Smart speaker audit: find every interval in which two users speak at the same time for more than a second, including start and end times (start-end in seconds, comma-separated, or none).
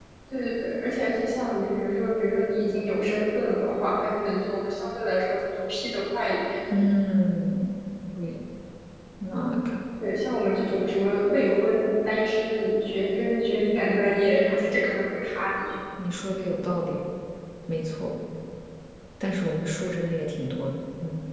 none